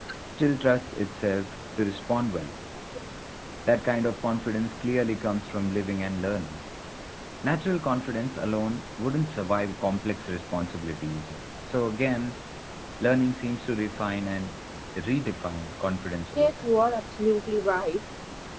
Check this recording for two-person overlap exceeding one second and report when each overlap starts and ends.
none

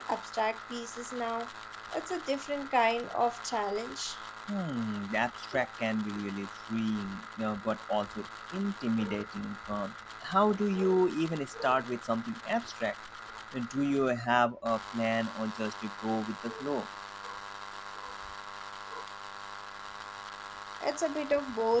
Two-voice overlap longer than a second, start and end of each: none

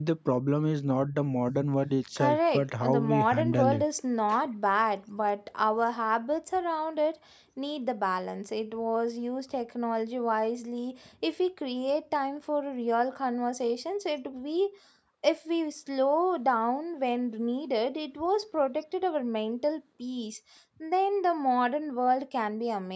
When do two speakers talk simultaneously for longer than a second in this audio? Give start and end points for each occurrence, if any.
2.2-3.8

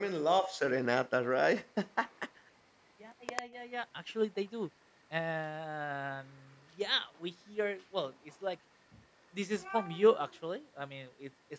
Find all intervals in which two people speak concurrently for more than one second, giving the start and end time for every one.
none

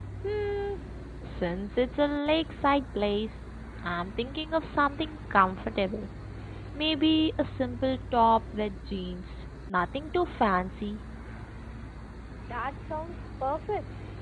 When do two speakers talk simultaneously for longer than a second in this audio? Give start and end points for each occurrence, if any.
none

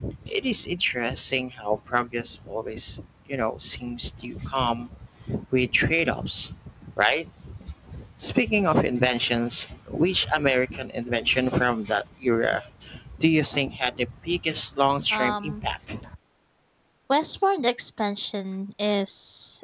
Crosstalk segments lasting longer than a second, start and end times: none

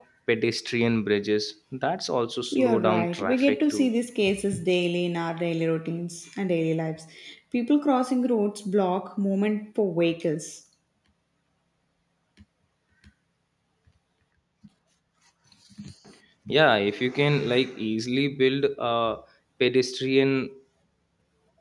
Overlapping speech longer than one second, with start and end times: 2.5-3.9

